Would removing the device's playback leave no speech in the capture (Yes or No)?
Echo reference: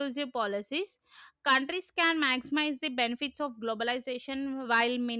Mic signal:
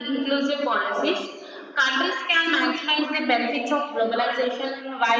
Yes